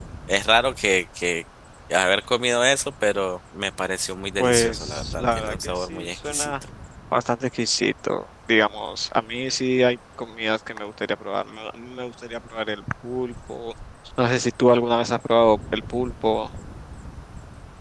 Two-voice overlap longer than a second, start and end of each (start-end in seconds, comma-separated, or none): 4.4-6.5